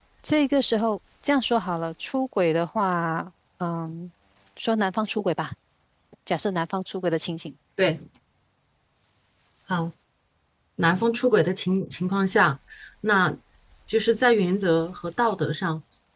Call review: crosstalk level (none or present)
none